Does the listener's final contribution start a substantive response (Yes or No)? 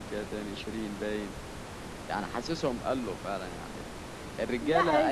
Yes